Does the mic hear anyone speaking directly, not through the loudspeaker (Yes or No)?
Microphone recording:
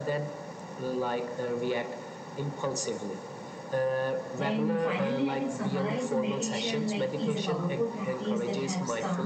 Yes